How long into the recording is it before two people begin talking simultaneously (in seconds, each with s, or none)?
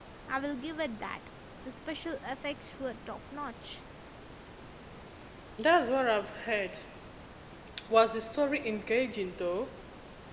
none